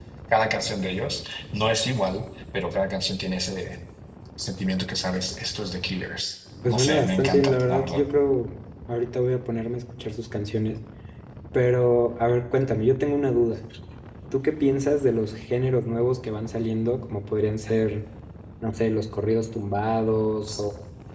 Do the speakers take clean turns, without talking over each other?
No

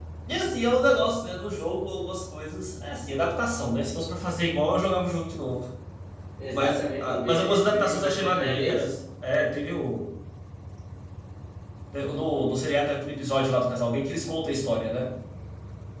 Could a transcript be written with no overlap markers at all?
No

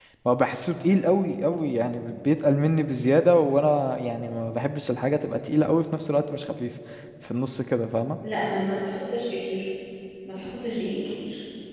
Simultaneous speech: No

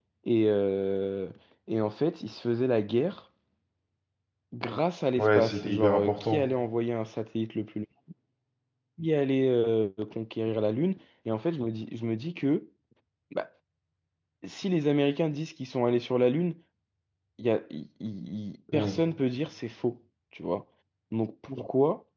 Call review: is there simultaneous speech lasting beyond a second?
Yes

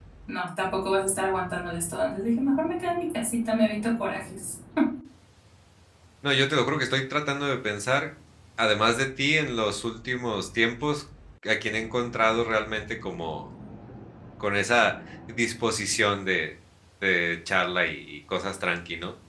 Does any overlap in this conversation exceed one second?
No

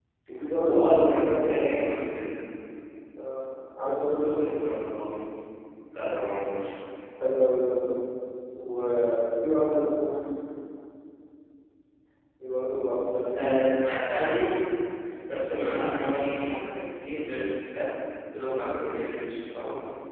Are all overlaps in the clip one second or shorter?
No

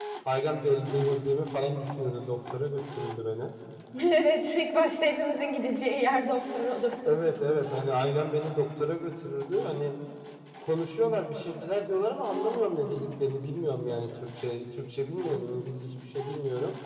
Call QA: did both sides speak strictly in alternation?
Yes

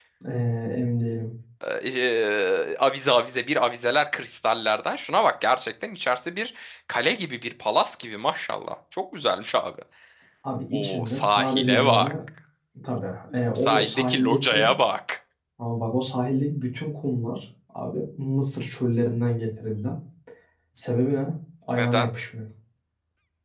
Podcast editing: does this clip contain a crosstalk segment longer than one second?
Yes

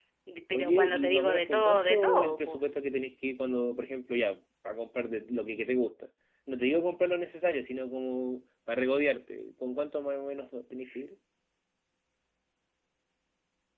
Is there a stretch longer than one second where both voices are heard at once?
Yes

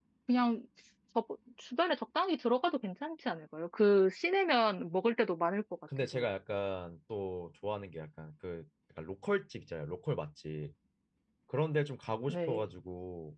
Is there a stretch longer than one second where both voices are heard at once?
No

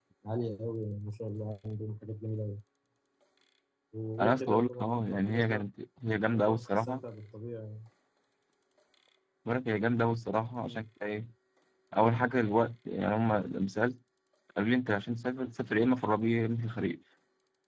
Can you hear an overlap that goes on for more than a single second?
Yes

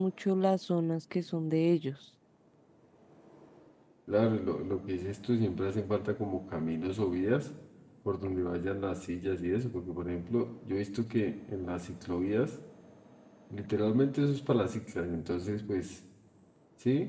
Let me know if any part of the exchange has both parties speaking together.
No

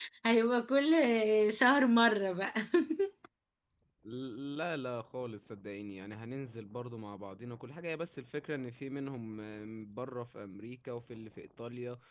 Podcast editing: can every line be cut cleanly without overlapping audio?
Yes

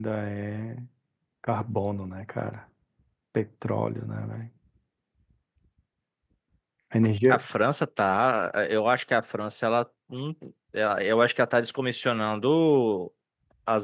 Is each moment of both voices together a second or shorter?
Yes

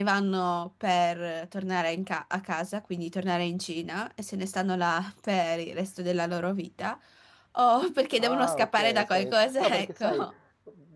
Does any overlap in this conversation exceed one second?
Yes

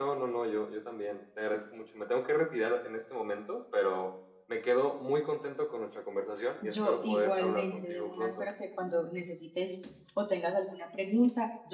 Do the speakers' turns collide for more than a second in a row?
Yes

